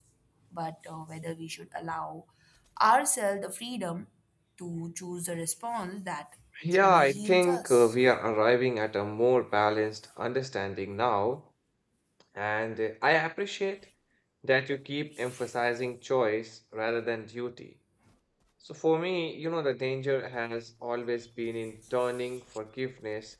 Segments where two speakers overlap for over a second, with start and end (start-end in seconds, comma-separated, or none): 6.7-8.0